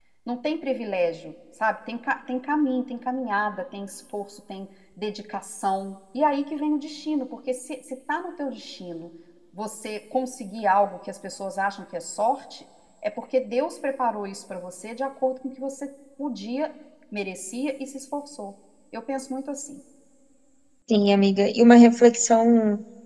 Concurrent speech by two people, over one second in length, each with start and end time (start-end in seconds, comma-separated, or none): none